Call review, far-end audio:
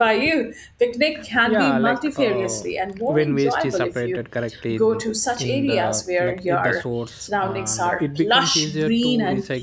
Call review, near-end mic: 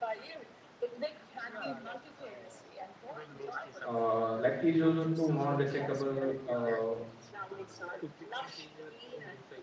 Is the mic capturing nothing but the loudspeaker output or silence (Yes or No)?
No